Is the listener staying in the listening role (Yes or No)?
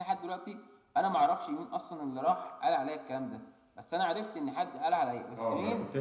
No